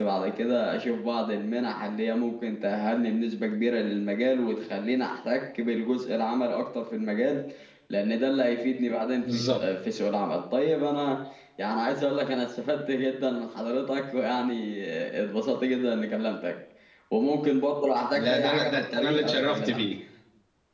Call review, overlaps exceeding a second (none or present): present